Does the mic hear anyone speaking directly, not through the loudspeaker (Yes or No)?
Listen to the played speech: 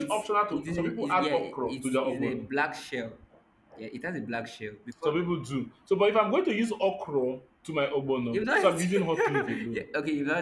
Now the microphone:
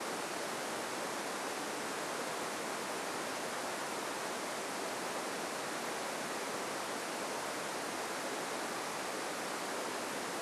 No